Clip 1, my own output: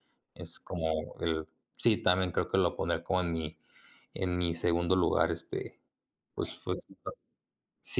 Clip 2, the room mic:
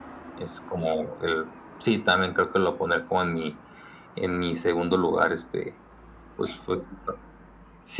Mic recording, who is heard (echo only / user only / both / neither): echo only